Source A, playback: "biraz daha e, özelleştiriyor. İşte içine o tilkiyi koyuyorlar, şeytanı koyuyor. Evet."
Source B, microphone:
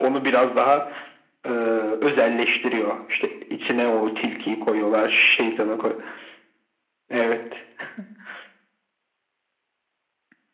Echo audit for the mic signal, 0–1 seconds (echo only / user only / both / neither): echo only